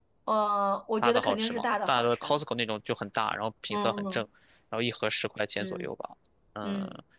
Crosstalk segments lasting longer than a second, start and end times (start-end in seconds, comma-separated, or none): 1.0-2.4